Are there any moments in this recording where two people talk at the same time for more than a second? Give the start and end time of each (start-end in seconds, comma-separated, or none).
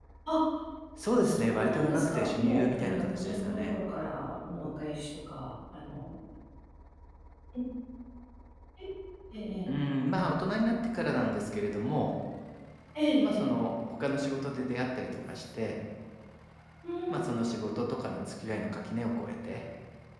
1.2-3.8